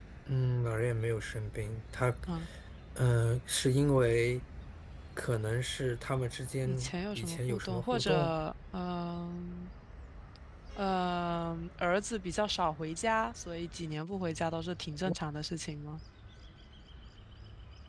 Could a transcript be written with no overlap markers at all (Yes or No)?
No